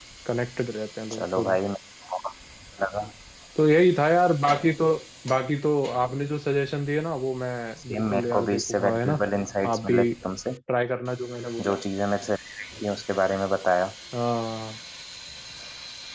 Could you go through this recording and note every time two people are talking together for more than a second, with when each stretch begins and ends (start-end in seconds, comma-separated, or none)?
7.9-9.2